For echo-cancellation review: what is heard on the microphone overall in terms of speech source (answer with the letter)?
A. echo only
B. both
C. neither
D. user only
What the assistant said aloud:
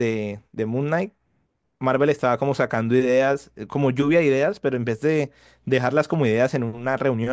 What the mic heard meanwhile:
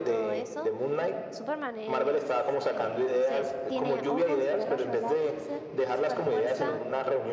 B